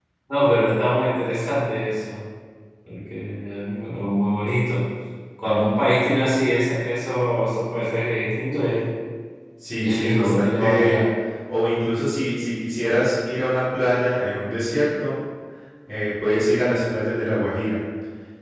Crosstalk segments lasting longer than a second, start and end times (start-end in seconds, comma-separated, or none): 9.8-11.1